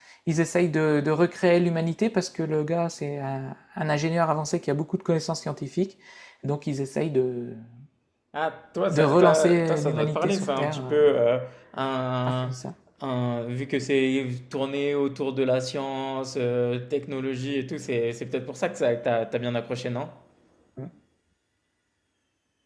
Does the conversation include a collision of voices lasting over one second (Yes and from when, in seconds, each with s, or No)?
Yes, from 8.9 s